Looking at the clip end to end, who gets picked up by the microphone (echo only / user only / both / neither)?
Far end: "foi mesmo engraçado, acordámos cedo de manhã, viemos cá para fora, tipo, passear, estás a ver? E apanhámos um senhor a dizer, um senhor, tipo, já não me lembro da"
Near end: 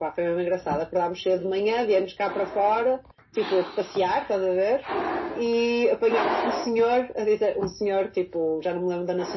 echo only